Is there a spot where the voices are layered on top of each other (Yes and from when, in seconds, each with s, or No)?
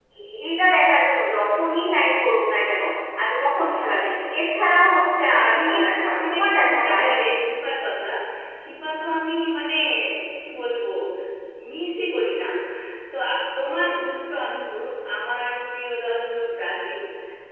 Yes, from 5.2 s